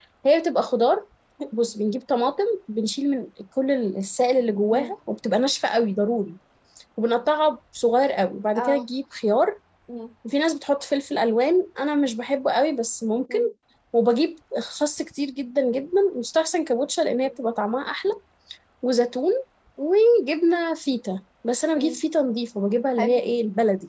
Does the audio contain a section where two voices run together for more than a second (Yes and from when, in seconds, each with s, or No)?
No